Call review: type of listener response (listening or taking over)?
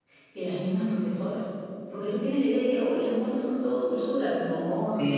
taking over